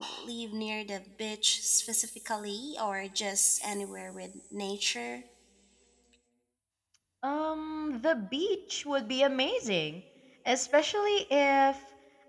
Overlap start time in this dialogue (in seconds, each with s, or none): none